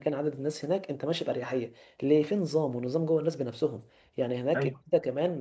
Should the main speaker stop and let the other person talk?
No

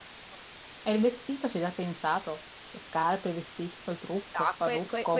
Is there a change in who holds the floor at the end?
Yes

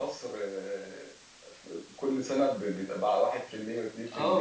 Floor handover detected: Yes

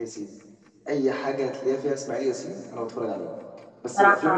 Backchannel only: Yes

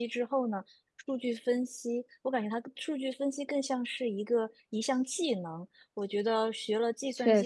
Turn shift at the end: No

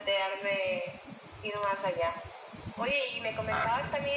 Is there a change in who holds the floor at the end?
No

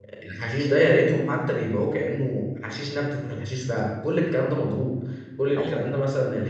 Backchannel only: Yes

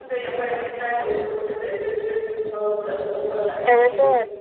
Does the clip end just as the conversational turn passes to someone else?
Yes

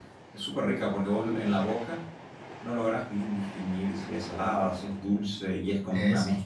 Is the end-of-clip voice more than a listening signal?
No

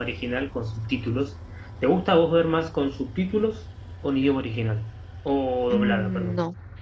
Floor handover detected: Yes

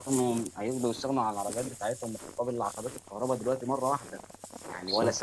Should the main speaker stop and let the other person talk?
No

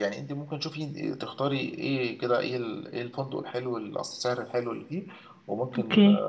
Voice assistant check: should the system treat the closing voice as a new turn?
No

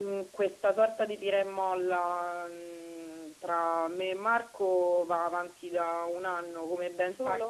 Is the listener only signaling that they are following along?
Yes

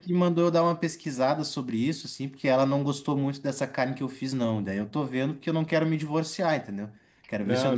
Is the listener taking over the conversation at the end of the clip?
No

